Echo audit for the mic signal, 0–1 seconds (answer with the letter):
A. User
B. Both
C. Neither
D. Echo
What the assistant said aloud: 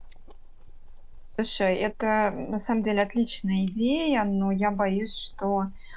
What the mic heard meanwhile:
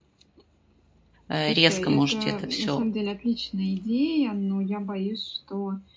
C